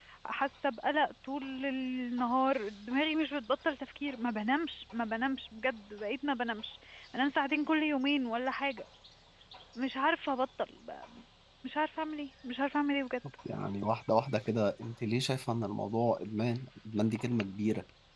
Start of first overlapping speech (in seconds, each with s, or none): none